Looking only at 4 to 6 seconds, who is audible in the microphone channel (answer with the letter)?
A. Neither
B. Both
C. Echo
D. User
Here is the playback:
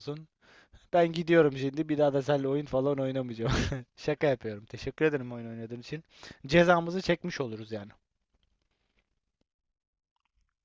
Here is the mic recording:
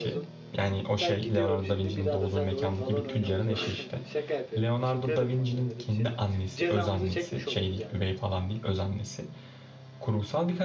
B